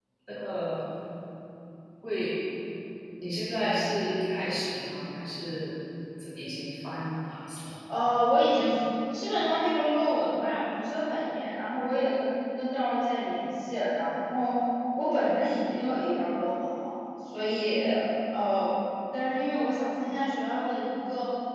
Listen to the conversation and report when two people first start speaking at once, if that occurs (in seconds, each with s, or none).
none